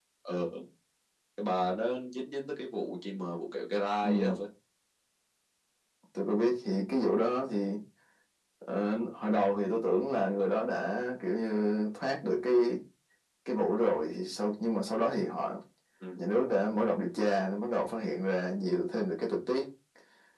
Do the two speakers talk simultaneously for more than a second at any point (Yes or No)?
No